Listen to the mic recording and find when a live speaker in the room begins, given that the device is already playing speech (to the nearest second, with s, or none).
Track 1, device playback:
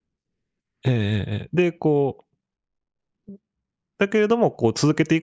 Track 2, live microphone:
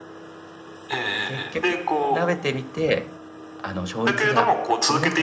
1 s